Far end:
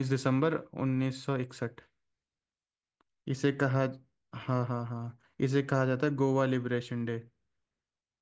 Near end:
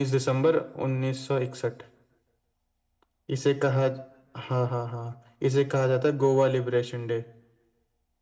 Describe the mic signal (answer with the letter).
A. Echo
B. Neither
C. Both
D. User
A